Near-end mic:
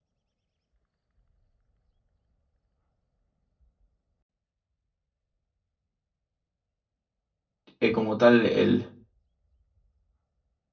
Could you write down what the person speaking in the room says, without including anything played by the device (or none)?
eh, como tal, el,